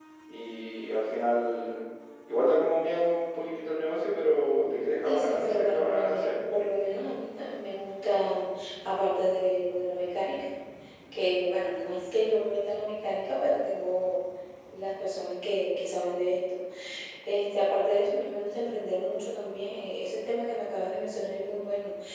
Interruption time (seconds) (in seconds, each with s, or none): 5.0 s